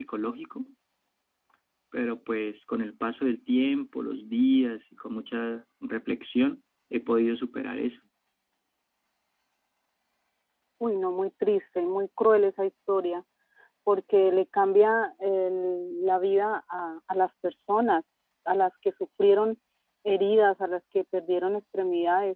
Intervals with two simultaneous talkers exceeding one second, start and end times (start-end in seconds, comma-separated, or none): none